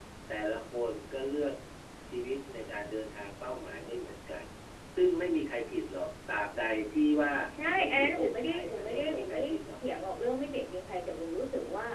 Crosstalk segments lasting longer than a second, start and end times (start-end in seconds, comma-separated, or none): 7.8-9.8